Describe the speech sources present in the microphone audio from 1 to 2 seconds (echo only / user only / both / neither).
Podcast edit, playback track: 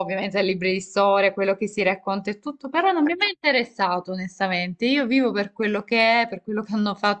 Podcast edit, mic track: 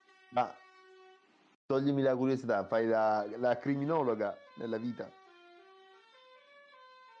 user only